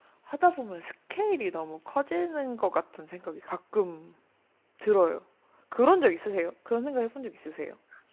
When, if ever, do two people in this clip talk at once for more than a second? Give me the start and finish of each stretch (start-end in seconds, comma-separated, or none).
none